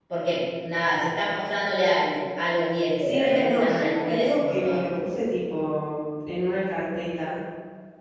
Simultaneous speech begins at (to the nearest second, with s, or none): 3 s